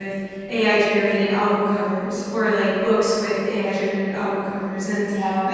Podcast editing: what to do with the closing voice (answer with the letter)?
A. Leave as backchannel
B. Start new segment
A